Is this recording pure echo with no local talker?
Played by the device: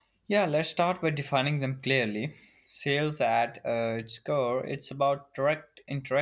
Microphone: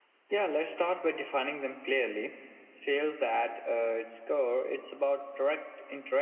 Yes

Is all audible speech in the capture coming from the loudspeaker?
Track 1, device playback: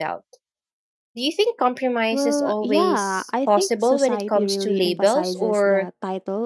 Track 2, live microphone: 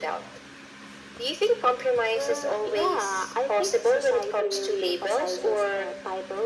Yes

